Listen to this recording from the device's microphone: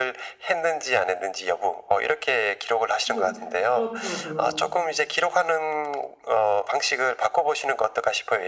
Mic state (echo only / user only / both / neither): both